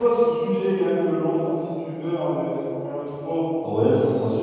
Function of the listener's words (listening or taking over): taking over